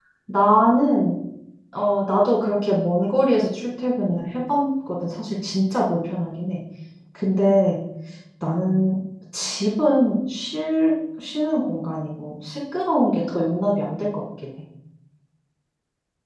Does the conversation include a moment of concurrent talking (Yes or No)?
No